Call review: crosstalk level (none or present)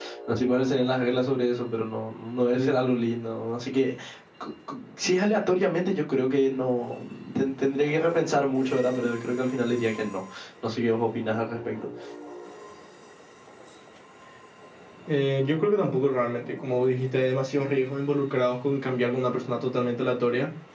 none